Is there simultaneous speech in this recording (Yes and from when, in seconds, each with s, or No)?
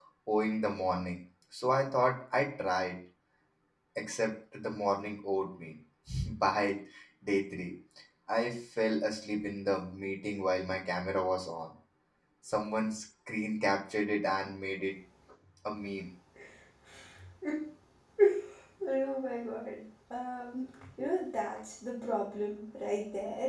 No